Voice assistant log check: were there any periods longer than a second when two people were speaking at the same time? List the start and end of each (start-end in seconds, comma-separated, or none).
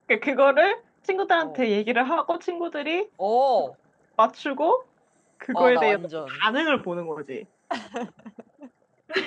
none